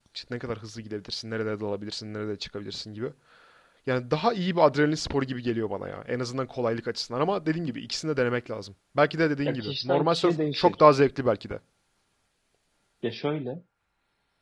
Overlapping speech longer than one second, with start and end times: 9.4-10.8

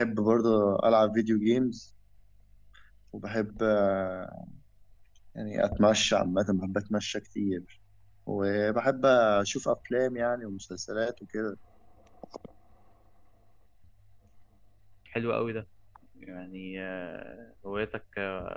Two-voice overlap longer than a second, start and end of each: none

